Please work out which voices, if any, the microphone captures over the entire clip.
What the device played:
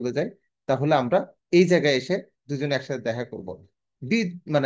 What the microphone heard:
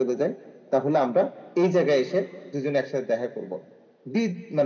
echo only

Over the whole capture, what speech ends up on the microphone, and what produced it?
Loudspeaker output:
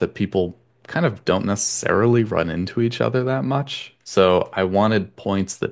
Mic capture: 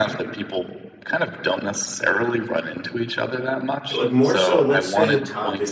both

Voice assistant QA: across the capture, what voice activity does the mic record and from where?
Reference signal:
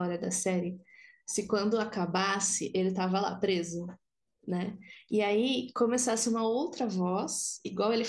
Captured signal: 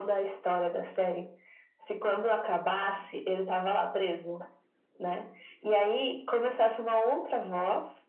echo only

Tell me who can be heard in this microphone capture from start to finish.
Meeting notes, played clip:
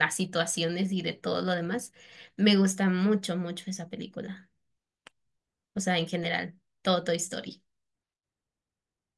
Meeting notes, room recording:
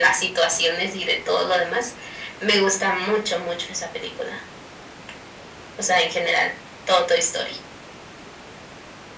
echo only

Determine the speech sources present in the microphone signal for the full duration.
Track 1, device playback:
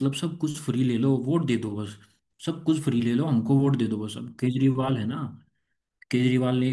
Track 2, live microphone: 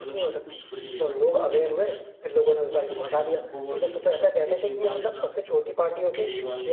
both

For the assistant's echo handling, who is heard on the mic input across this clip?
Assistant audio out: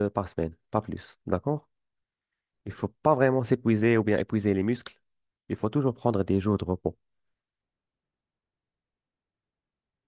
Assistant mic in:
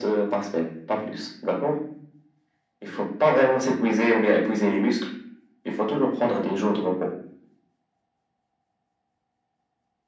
echo only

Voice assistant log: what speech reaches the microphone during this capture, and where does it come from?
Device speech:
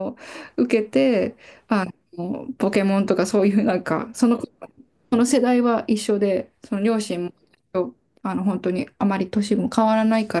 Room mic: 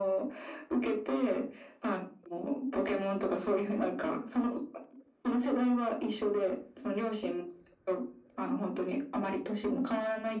echo only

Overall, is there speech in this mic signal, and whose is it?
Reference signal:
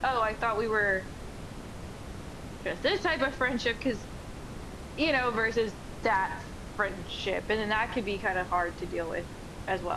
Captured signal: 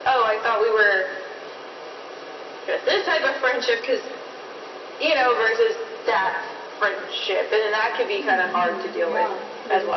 both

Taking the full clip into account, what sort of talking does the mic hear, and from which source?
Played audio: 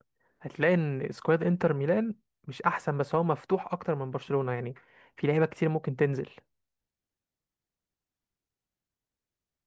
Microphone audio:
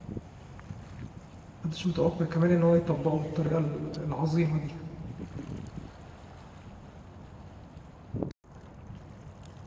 user only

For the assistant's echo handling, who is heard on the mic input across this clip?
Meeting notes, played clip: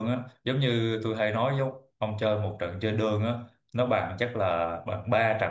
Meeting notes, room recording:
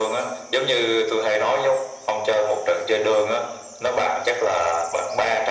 echo only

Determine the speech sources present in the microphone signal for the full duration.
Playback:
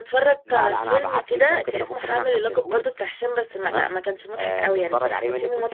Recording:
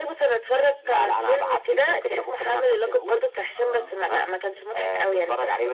both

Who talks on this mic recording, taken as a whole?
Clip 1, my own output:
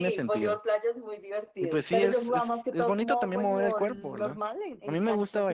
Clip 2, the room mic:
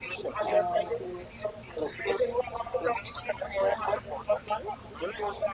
both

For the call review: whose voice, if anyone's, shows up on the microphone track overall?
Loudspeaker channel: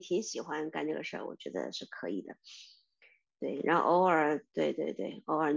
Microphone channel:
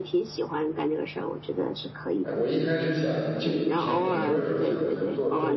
both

